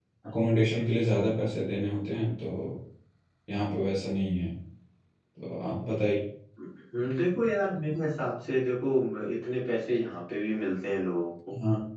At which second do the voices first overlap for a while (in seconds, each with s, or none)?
none